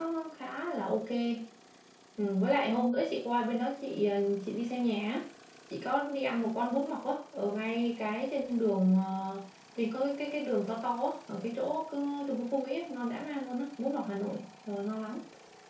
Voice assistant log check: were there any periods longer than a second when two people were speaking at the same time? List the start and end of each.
none

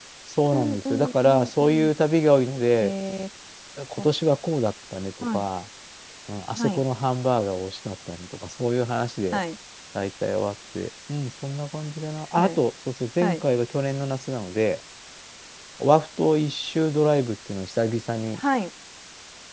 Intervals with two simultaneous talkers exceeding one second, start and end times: 0.5-1.9

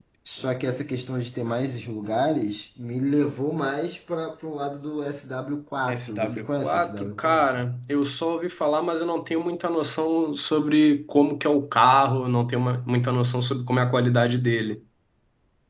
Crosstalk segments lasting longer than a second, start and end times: 5.9-7.7

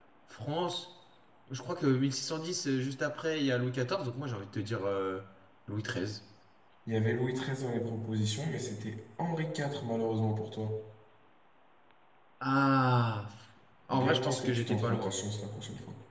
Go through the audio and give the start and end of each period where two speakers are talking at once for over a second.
13.9-15.1

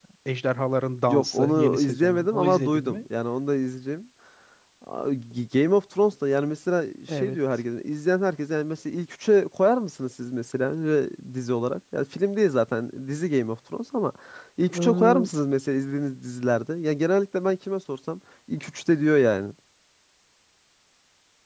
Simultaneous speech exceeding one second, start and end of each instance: 1.1-3.0

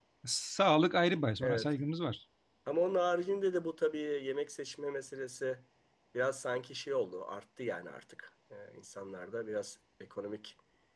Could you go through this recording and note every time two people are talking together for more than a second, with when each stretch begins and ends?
none

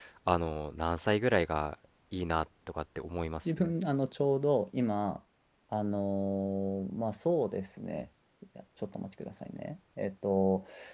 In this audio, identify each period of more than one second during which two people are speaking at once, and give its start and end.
none

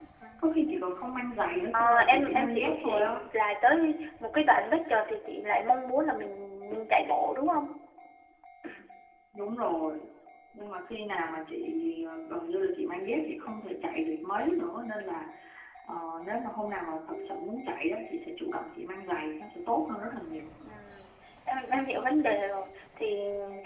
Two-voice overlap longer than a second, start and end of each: 1.7-3.1

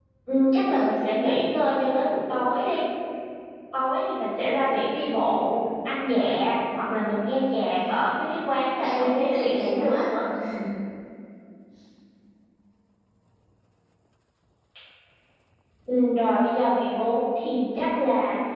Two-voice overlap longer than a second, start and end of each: 8.8-10.1

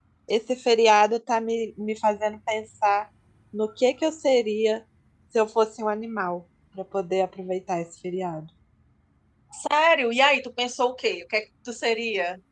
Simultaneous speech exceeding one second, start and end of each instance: none

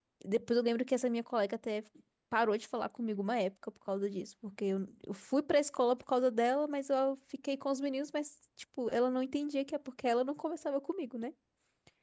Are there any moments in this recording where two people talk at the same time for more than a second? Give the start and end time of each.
none

